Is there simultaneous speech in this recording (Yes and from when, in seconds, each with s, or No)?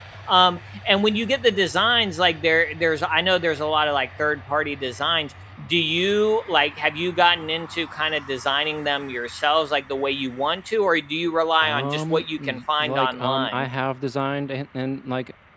Yes, from 11.6 s